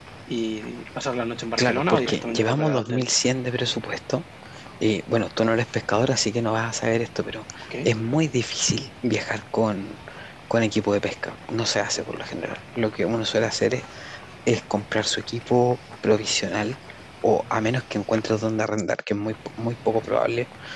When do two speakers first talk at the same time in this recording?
1.6 s

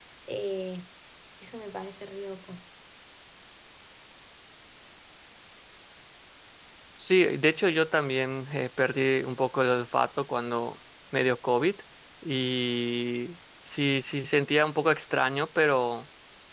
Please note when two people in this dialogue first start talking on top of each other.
none

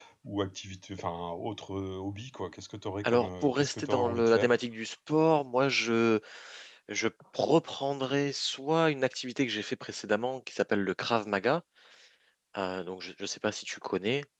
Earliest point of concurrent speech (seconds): 3.0 s

